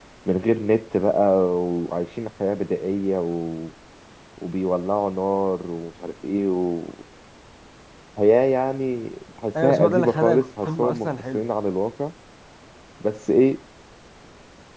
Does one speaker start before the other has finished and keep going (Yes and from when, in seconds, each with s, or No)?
Yes, from 9.5 s